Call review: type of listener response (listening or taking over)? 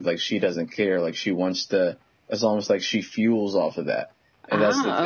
listening